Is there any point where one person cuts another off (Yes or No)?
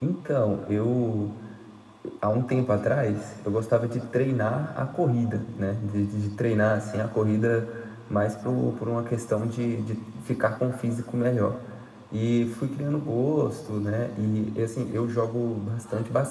No